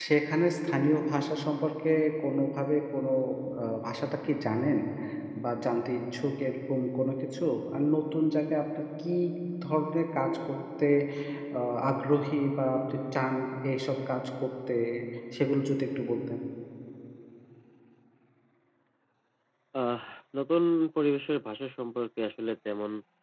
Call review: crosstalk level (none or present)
none